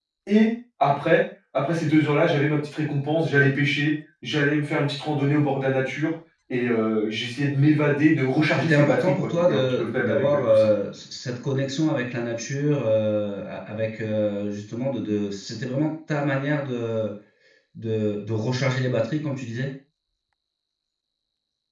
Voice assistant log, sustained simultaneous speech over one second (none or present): present